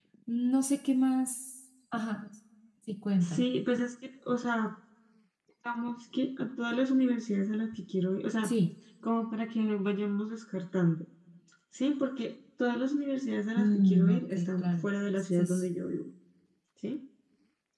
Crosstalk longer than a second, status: present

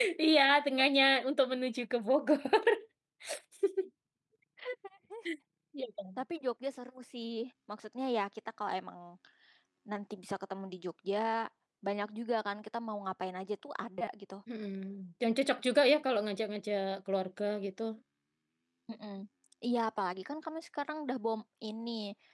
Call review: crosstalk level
none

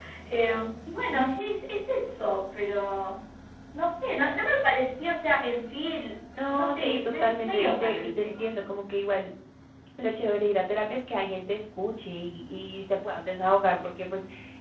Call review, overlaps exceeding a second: present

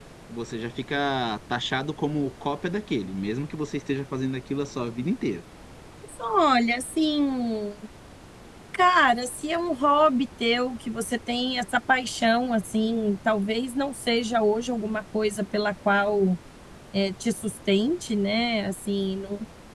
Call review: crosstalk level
none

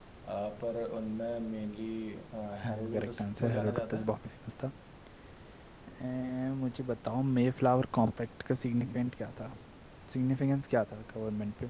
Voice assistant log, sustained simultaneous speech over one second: present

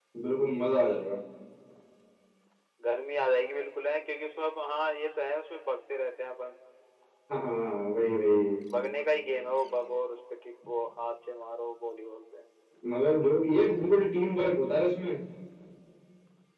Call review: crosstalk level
none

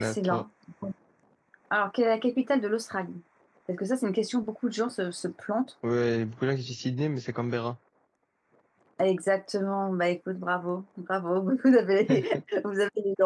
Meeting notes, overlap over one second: none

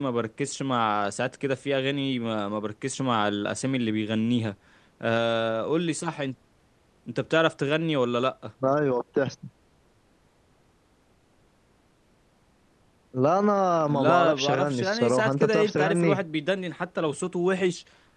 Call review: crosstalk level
present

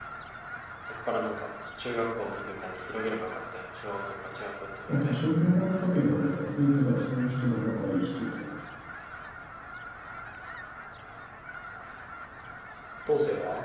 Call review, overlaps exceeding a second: none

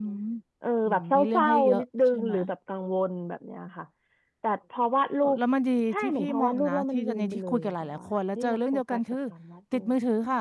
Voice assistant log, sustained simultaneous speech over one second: present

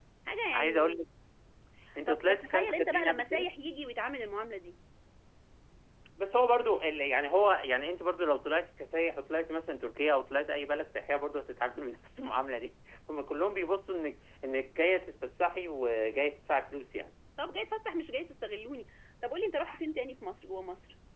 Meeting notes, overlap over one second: present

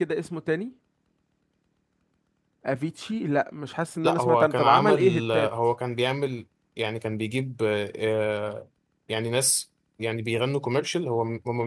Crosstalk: present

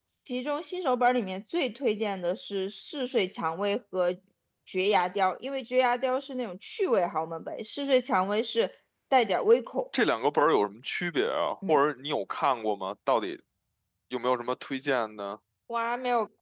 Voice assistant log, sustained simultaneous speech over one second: none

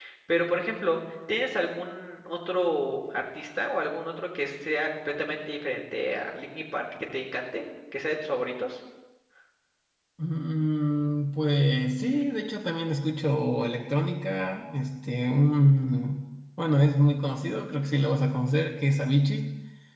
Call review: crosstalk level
none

